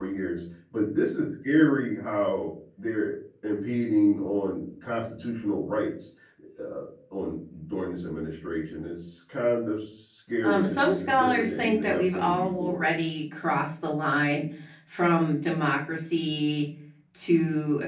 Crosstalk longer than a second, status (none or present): present